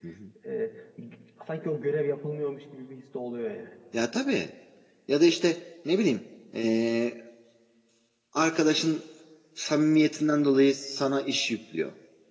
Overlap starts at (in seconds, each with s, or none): none